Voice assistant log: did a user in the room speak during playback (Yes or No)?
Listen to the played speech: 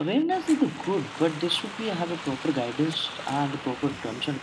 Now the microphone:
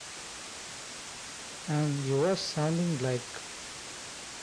Yes